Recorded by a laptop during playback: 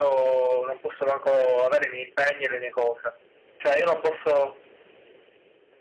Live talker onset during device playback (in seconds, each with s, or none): none